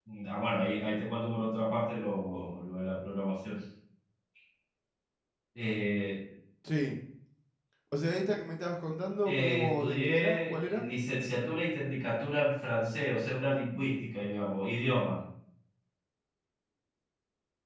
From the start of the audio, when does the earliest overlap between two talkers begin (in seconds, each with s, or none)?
9.2 s